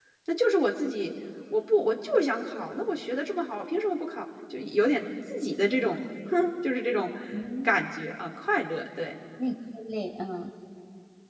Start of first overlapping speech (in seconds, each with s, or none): none